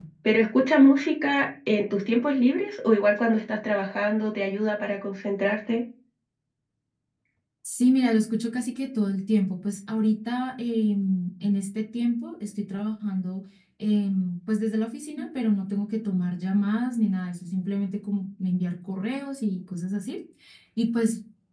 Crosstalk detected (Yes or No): No